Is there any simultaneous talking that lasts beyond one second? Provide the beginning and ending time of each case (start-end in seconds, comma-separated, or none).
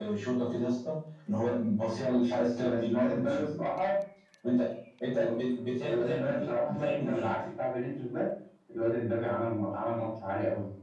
2.0-3.6, 5.8-7.3